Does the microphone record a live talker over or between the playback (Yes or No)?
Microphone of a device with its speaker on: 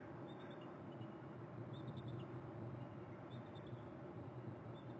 No